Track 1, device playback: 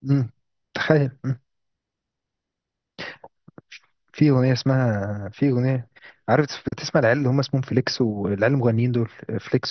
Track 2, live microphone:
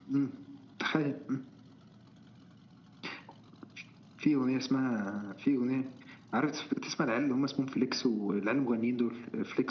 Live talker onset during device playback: none

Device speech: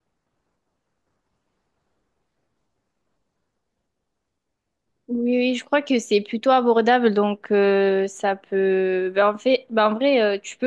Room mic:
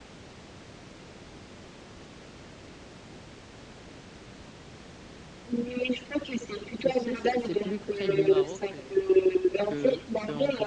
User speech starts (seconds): 6.8 s

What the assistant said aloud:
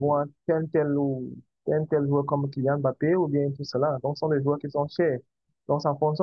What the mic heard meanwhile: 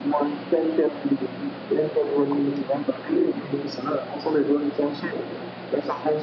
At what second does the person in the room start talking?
none

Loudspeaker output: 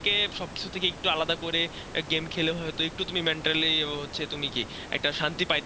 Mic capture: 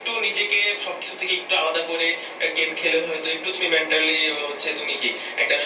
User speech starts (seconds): none

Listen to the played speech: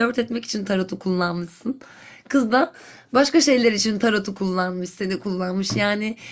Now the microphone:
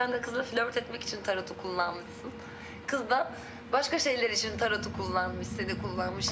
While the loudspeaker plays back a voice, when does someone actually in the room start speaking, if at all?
none

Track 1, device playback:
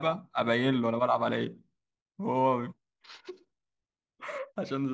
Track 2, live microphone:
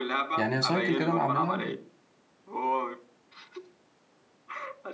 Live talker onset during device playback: 0.4 s

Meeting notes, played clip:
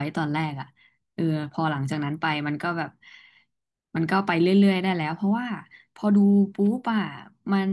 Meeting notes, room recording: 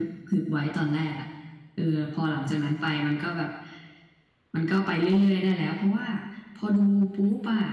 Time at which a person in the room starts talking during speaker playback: none

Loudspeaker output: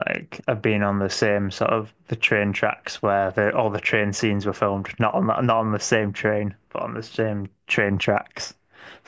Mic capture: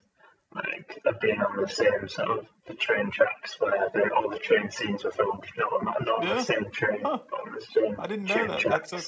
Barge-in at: 6.2 s

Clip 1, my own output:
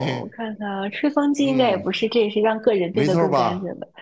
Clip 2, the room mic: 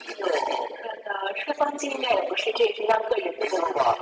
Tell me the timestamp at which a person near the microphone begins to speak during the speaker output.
none

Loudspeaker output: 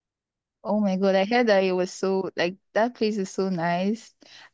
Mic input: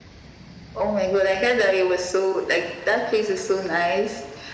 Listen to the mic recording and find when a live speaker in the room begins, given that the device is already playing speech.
none

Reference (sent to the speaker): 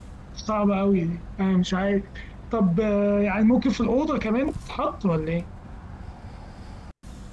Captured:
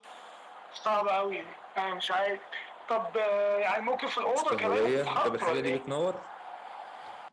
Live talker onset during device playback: 4.3 s

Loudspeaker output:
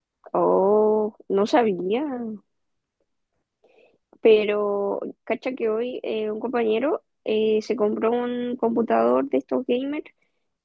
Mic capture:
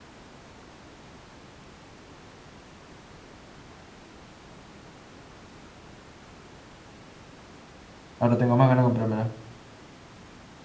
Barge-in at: 8.2 s

